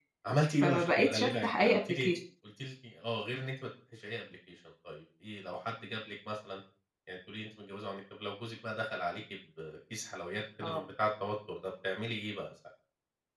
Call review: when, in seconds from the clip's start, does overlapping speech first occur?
0.6 s

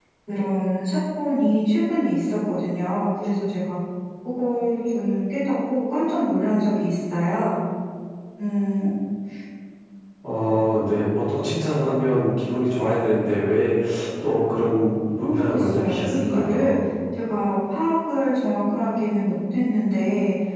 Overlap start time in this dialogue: 15.2 s

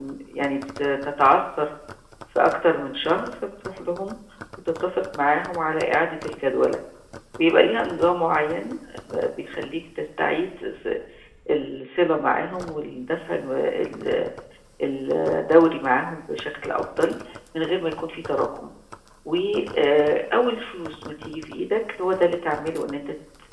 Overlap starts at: none

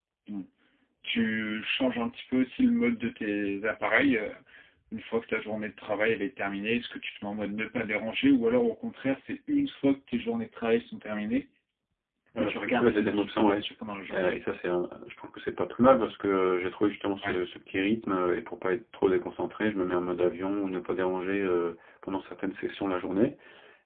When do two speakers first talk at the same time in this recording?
12.4 s

